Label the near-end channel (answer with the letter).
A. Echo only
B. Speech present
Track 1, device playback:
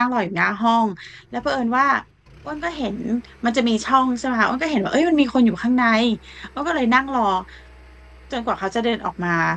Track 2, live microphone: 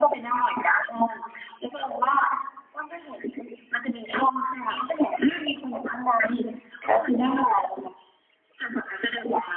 B